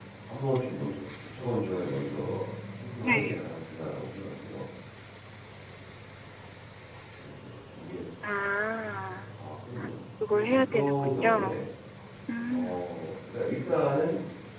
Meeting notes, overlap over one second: present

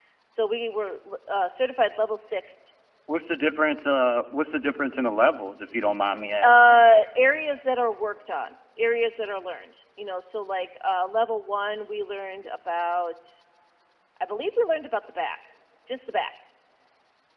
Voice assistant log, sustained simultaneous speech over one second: none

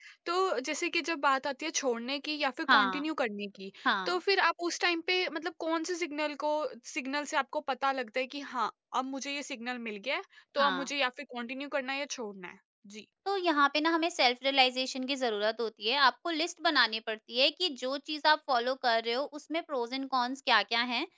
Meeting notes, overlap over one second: none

